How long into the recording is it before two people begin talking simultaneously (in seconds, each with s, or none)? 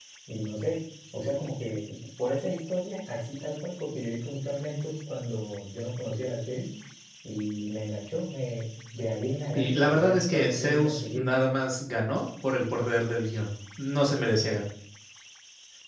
9.6 s